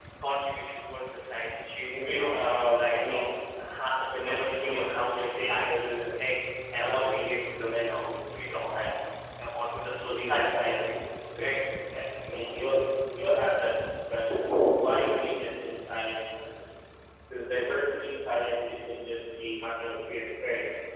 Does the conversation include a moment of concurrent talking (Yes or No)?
Yes